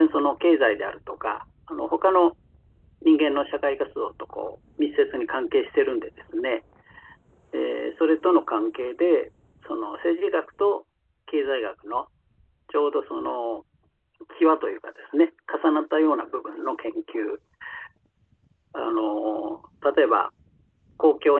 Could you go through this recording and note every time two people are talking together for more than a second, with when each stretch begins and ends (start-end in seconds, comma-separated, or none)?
none